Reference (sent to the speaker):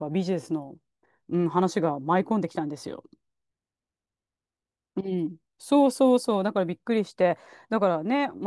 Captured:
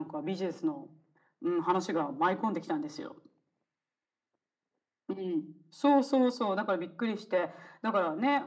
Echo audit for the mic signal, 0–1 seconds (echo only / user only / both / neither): echo only